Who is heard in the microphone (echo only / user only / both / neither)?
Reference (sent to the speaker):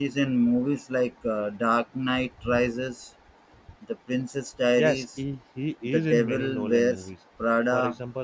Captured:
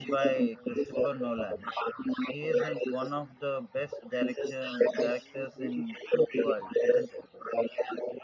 both